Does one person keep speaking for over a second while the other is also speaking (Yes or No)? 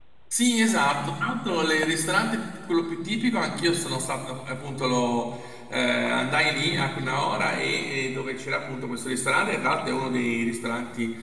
No